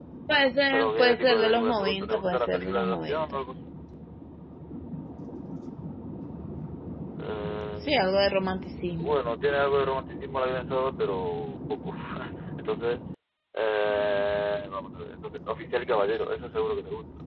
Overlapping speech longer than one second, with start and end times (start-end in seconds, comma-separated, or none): 0.7-3.4